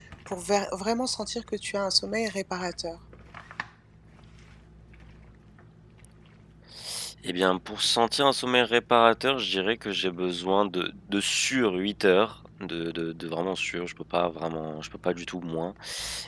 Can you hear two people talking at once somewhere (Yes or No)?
No